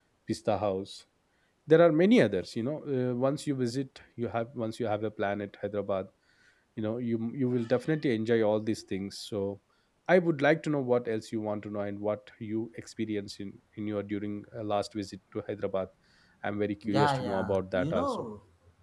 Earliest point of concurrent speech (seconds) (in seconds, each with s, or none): 16.8 s